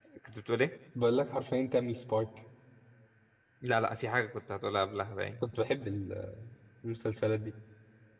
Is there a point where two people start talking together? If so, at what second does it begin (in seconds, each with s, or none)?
none